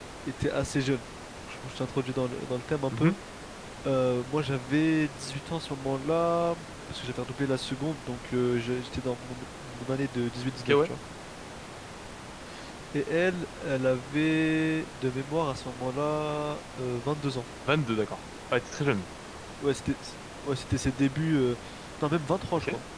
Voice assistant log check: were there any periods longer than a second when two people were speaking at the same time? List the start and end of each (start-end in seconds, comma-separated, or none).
none